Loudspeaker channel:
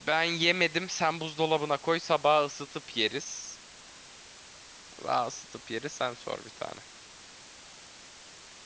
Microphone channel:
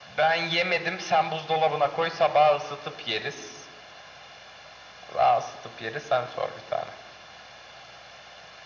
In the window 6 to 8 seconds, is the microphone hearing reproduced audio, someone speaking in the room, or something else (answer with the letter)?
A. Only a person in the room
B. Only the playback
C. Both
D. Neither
B